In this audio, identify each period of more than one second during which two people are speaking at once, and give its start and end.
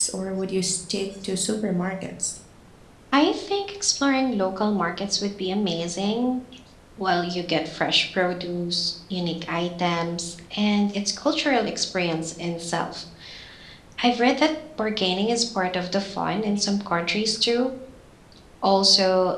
none

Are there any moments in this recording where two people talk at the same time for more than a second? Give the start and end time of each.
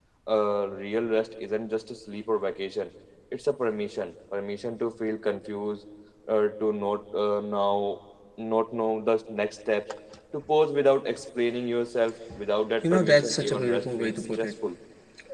12.8-14.5

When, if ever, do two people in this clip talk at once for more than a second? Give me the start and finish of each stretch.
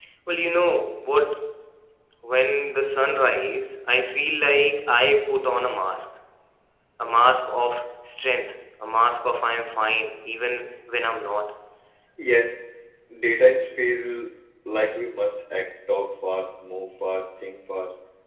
none

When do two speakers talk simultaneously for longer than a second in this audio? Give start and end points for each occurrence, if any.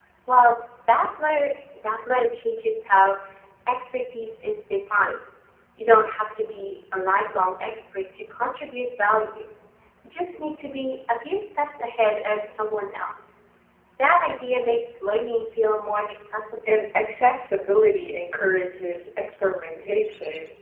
none

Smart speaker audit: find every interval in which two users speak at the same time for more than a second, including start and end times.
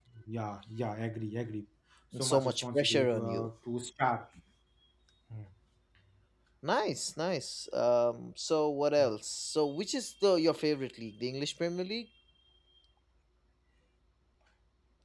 2.2-3.5

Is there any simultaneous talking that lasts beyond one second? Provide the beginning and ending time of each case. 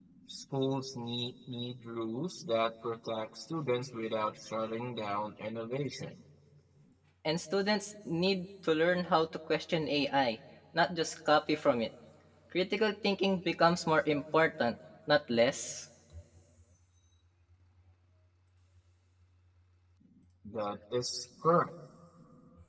none

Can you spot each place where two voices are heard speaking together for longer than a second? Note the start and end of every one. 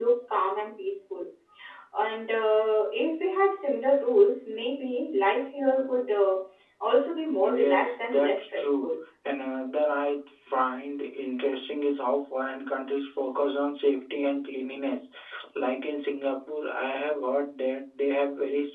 7.4-8.9

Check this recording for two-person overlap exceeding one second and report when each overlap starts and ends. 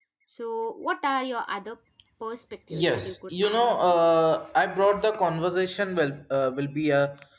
2.7-4.0

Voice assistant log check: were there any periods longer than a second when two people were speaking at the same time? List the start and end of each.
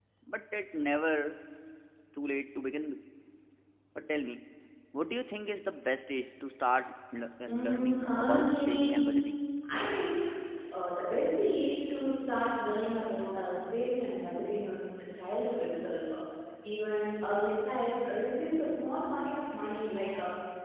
7.5-9.0

